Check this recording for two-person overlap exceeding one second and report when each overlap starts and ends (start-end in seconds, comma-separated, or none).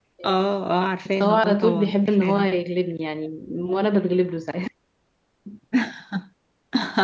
1.2-2.5